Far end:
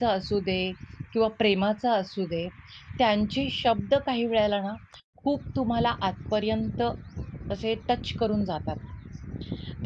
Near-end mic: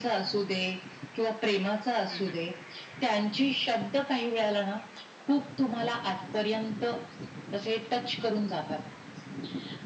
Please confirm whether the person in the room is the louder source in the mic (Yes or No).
No